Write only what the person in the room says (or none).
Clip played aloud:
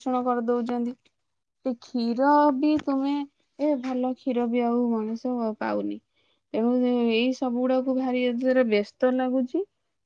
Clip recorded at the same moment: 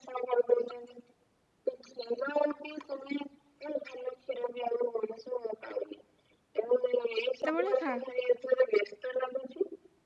କେତେବେଳେ ଖା?